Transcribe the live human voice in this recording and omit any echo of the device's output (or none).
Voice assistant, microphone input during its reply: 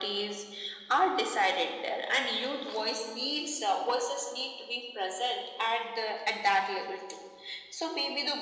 none